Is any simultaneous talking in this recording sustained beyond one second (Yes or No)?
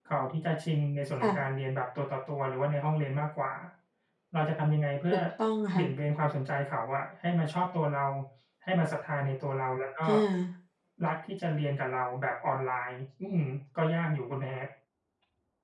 No